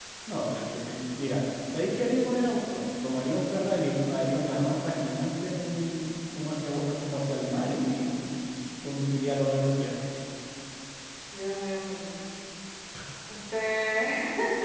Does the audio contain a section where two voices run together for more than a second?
No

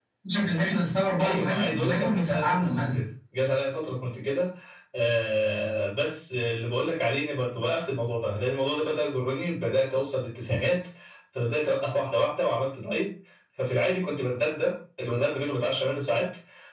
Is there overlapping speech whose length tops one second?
Yes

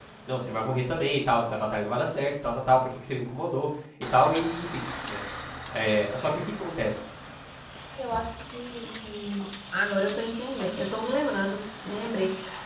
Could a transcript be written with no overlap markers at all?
Yes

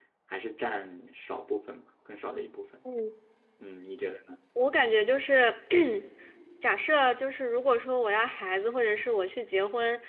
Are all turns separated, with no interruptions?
Yes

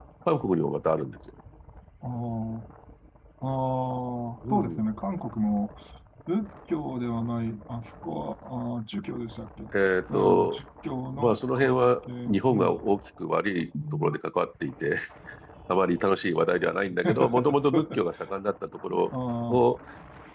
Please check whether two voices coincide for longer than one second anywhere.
Yes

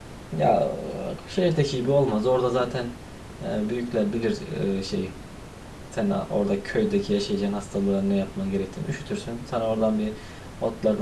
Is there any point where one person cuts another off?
No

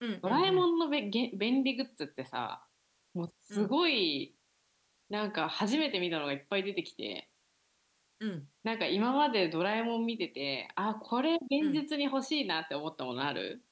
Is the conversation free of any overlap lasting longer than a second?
Yes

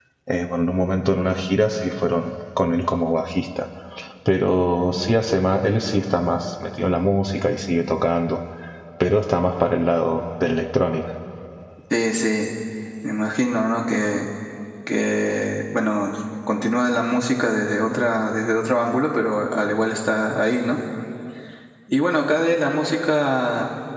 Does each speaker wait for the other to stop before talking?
Yes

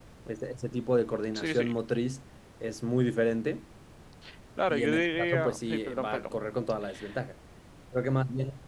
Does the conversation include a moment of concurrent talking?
Yes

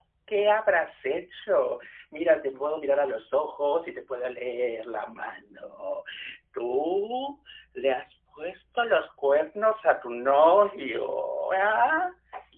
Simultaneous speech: No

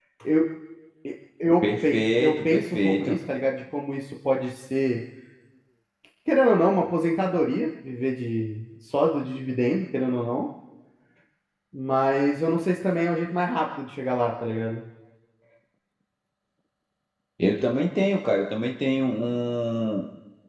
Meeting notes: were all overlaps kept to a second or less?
No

